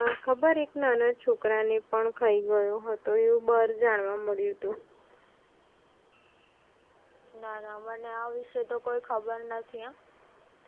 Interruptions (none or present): none